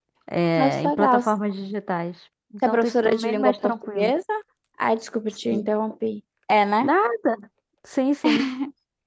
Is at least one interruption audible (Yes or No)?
Yes